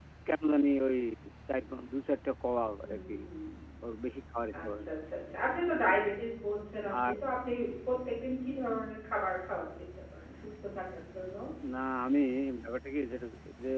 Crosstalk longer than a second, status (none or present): none